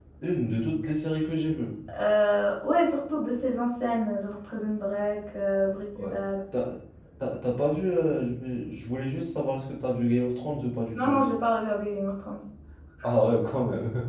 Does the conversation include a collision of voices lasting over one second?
No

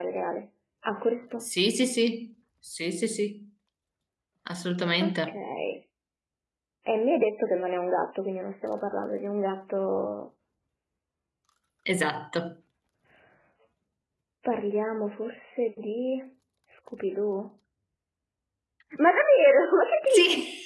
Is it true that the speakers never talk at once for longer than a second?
Yes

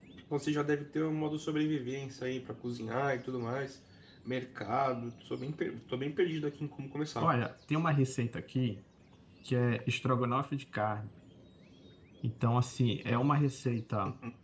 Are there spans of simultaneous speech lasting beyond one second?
No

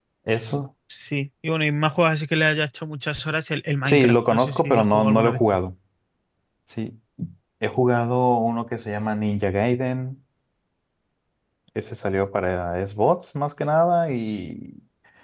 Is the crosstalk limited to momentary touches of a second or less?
No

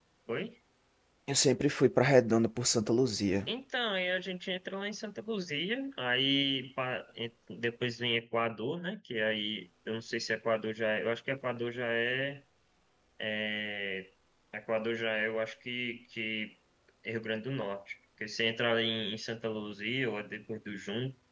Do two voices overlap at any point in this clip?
No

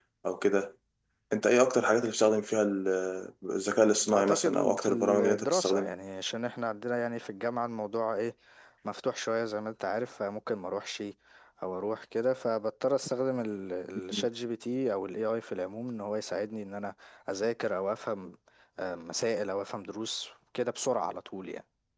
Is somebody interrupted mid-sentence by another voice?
Yes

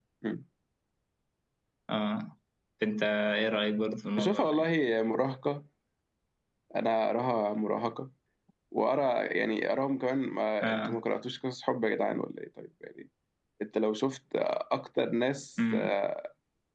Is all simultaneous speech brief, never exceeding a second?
Yes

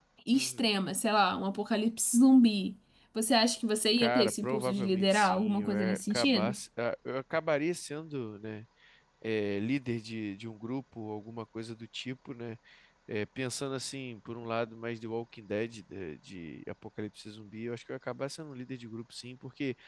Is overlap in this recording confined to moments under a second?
No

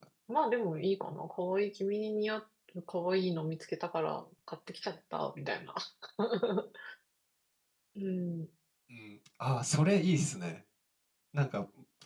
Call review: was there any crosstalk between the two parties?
No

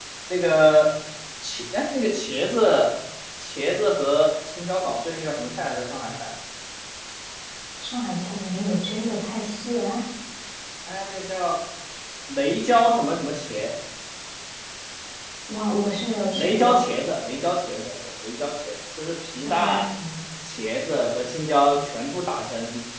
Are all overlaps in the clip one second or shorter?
Yes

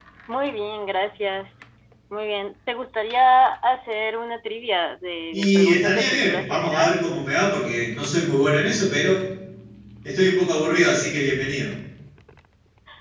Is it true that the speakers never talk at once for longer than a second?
No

